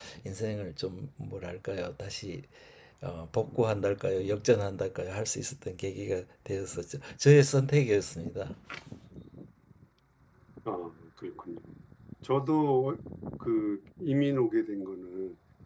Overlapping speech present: No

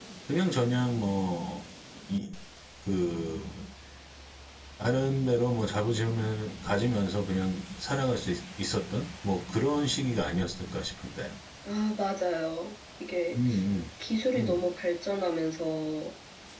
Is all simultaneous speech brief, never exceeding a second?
Yes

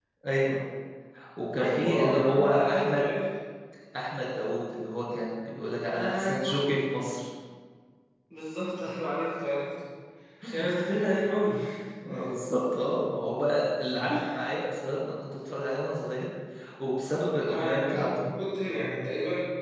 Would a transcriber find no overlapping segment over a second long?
No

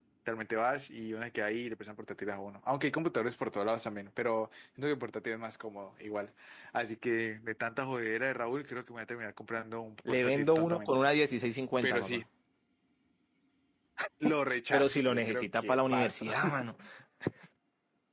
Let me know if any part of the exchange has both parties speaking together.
Yes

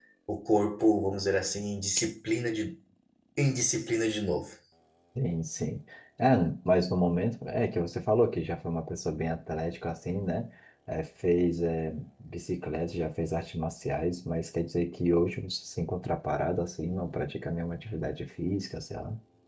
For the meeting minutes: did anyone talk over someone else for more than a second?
No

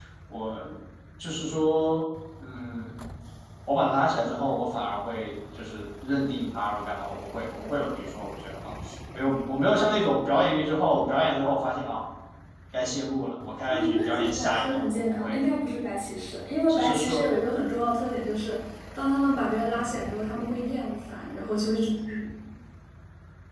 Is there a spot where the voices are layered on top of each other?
Yes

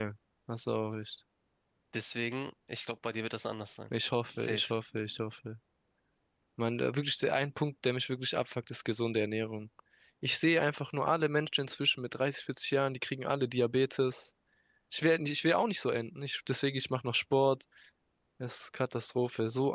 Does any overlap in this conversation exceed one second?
No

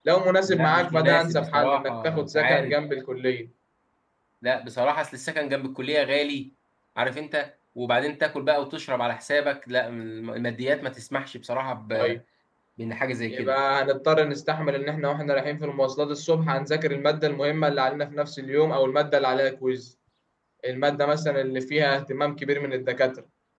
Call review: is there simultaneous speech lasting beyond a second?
Yes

